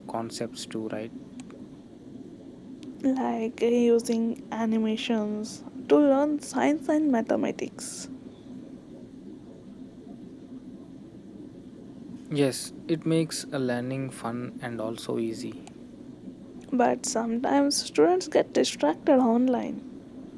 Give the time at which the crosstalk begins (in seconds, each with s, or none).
none